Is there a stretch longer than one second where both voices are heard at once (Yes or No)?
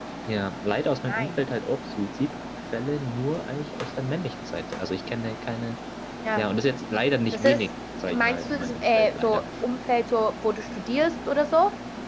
Yes